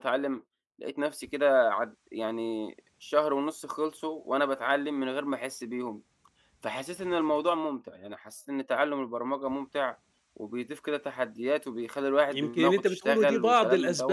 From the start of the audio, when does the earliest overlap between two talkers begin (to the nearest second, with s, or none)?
12 s